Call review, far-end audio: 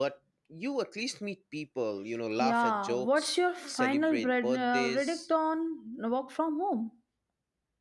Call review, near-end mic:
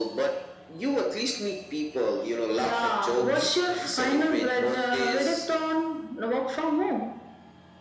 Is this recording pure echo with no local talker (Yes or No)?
No